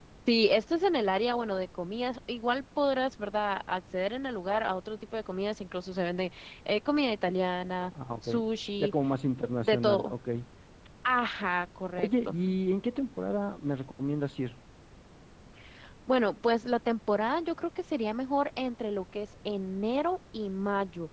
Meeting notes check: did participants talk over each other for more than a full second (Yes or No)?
No